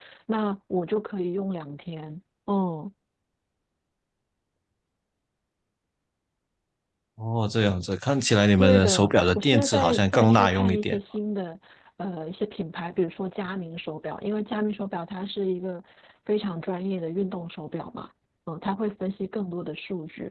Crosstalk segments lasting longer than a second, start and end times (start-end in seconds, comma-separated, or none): 8.6-11.0